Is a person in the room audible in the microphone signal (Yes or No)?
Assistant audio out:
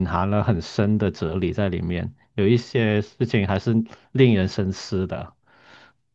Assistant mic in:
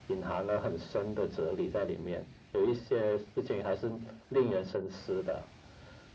No